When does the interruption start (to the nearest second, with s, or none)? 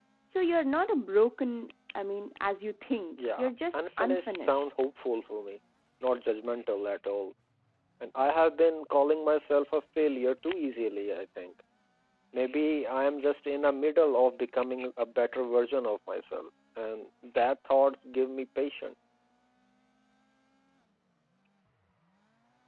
3 s